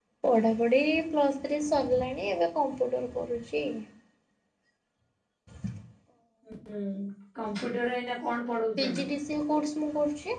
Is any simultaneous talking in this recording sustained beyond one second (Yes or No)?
No